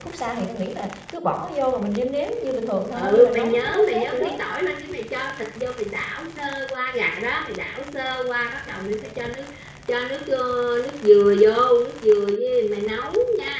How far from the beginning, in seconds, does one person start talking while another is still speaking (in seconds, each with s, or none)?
2.9 s